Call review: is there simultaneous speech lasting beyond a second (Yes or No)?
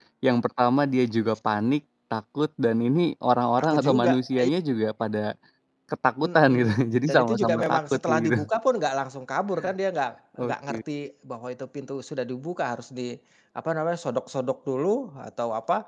Yes